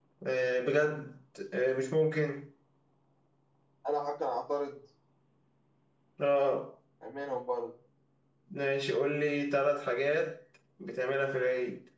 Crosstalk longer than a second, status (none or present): none